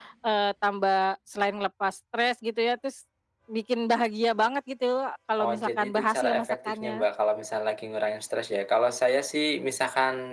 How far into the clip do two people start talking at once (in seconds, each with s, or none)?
5.4 s